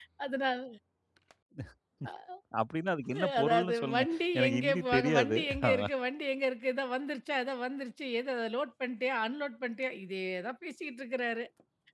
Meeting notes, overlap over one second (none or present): present